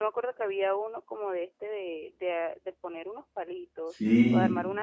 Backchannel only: No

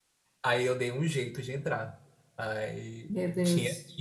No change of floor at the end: Yes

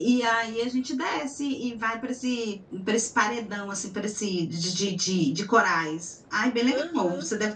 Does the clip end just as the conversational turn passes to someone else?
Yes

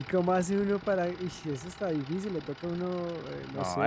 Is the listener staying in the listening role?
No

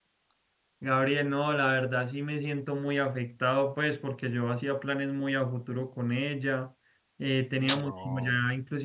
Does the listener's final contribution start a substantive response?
No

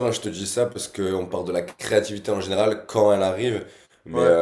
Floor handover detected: No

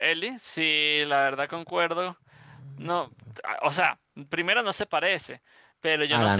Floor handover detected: No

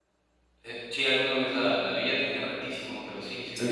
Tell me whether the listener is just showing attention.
No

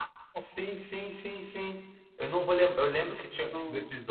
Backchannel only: Yes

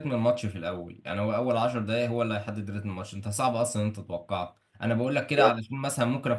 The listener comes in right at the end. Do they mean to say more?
No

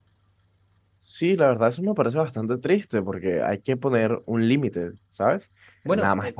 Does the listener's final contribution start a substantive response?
No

